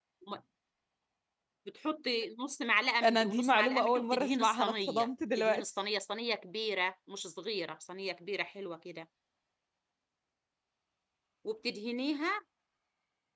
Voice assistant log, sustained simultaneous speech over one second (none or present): present